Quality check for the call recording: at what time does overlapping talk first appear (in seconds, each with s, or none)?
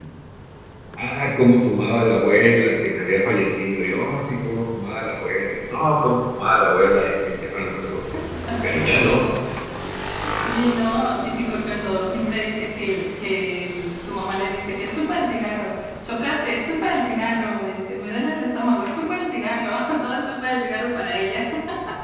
none